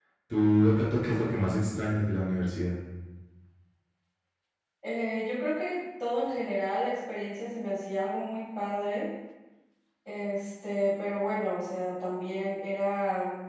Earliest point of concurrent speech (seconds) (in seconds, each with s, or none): none